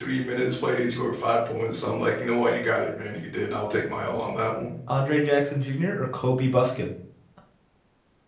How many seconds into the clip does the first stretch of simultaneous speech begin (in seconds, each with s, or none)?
none